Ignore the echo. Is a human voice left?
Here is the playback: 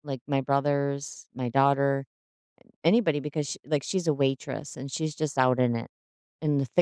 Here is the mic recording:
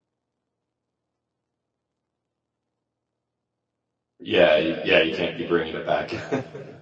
Yes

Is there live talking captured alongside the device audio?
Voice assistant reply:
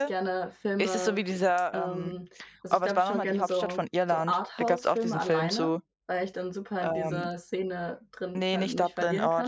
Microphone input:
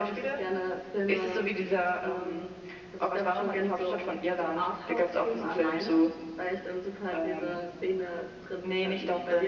No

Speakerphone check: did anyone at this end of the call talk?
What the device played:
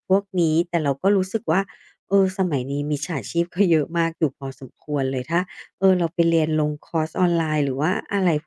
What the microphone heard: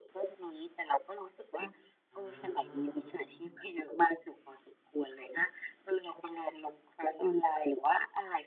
Yes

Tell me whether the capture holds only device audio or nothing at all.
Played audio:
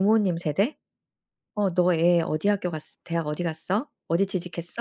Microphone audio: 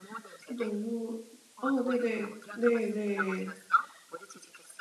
No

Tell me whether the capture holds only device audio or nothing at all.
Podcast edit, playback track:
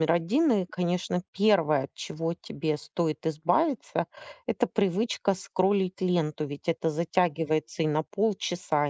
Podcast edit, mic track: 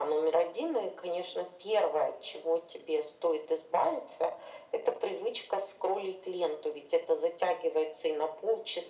Yes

